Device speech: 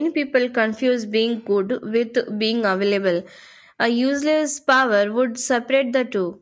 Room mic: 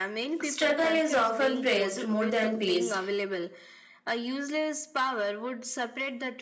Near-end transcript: Struggle is often praised more than peace,

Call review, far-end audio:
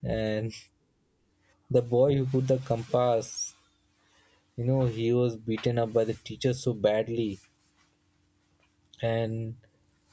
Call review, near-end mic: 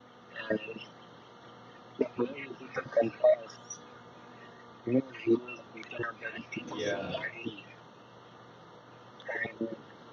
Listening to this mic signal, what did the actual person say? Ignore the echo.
Yeah.

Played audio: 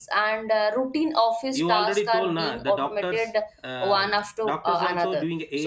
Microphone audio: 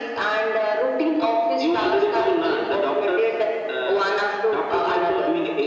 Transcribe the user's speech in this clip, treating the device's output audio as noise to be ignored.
none

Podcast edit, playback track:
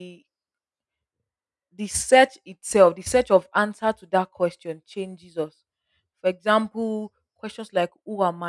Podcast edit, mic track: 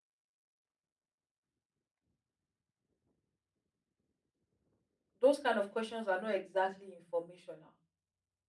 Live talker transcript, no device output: those kind of questions are not exactly informational

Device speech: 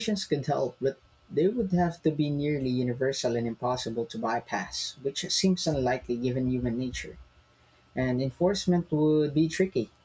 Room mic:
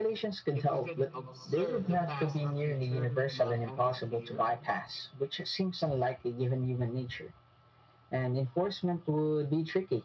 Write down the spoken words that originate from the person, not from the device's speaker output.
If we could observe the past or future but not interfere,

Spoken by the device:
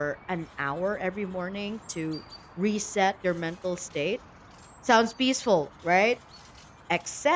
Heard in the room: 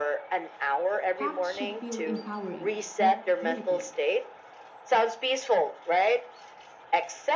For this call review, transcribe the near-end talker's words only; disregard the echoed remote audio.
Hacks should feel empowering, not punitive.

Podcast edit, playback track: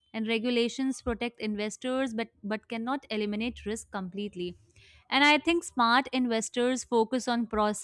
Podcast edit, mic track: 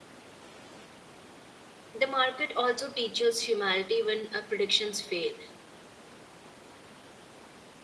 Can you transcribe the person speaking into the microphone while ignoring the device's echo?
The market also teaches humanity when uh, predictions fail.

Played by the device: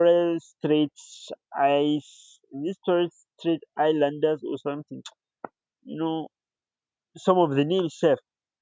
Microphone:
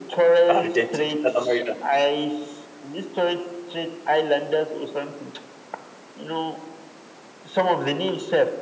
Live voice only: Argentina, South America,

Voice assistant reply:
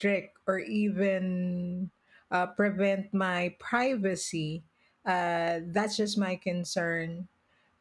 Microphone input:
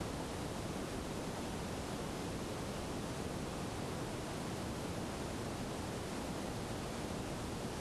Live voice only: none

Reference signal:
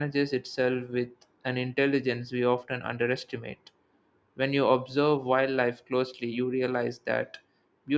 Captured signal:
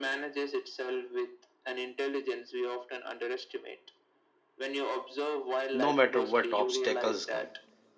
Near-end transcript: no matter what obstacles come.

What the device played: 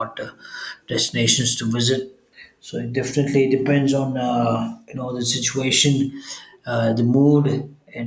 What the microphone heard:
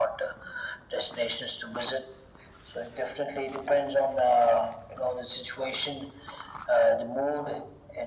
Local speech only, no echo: none

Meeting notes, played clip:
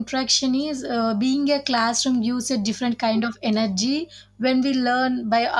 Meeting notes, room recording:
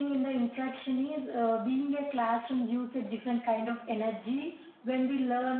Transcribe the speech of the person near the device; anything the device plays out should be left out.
none

